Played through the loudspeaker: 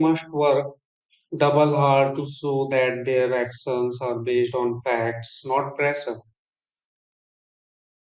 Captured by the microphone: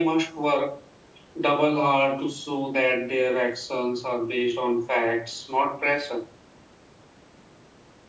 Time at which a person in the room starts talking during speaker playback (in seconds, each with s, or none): none